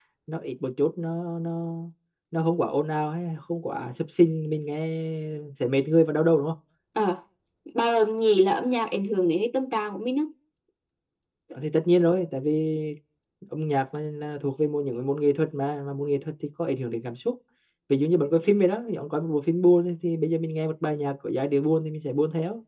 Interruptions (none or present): none